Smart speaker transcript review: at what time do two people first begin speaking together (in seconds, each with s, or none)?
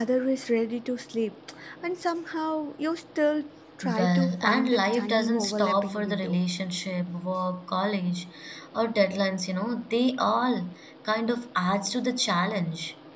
3.8 s